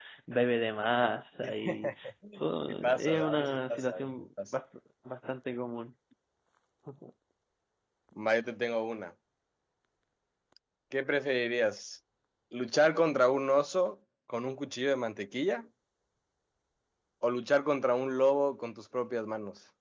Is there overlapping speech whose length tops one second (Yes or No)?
Yes